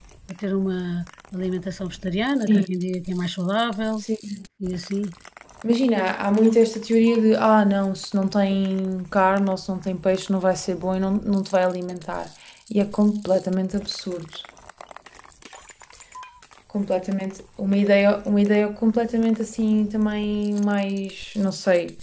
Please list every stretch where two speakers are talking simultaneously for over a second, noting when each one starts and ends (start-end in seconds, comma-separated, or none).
none